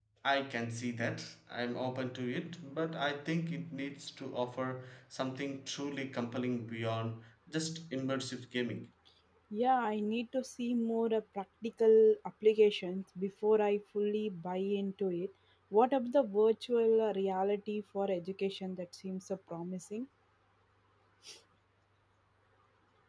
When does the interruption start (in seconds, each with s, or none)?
none